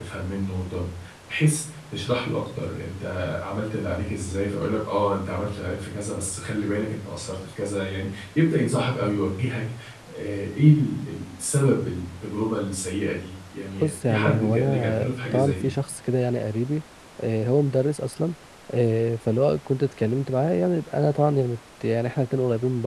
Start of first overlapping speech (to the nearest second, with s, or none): 14 s